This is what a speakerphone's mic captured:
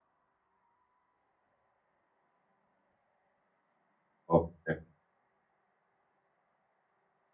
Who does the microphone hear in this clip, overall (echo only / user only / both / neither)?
user only